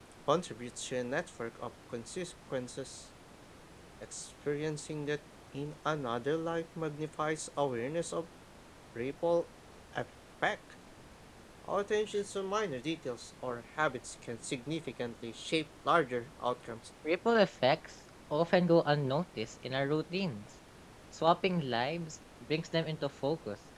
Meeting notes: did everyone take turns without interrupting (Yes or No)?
Yes